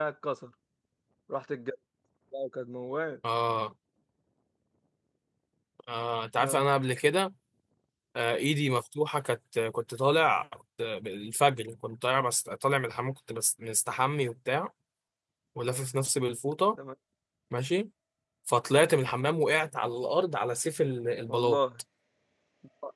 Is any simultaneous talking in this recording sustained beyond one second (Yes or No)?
No